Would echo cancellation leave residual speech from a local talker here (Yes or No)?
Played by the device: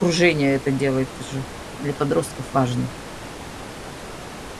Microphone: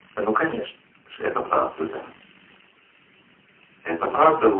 Yes